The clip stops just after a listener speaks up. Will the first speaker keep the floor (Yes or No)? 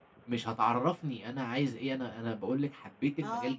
Yes